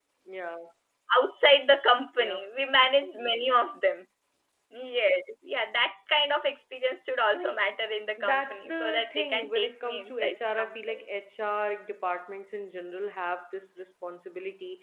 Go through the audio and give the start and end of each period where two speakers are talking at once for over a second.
8.2-11.0

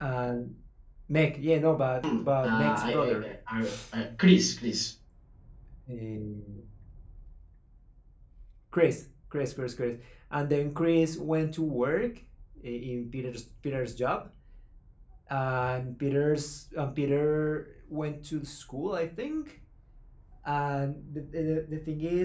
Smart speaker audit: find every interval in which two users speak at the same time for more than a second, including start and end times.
2.0-3.3

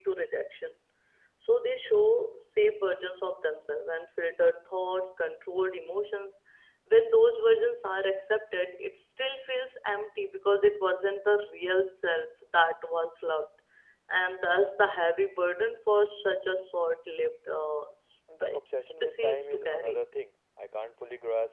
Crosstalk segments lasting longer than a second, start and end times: 18.4-20.0

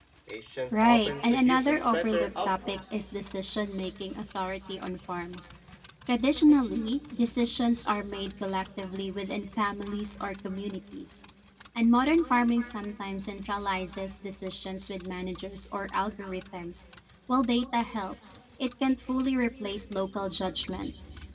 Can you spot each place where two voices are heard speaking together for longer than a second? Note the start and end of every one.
0.7-3.0

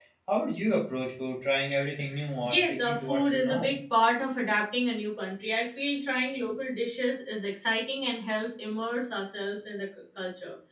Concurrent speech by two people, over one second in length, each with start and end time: 2.4-3.7

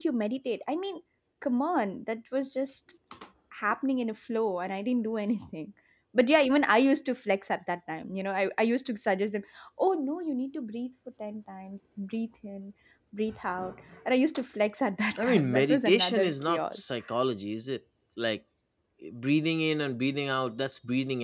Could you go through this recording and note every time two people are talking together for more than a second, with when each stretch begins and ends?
15.2-16.8

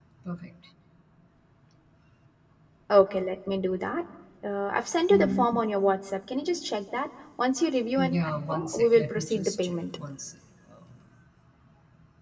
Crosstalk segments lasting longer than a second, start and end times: 8.0-9.8

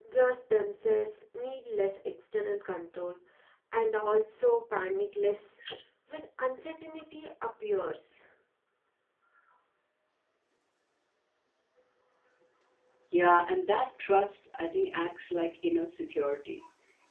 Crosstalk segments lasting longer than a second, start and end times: none

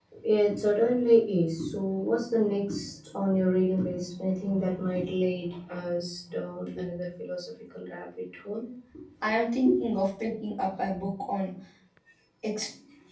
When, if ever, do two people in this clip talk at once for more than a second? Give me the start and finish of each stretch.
none

